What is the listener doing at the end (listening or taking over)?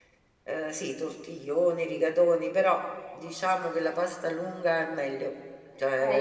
taking over